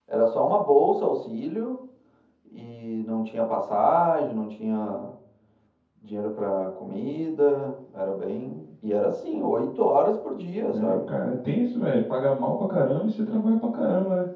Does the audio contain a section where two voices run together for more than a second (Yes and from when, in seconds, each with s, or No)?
No